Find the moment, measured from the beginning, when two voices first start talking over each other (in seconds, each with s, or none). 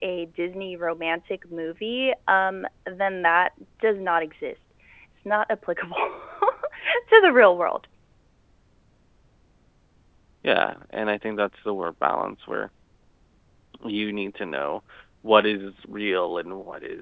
none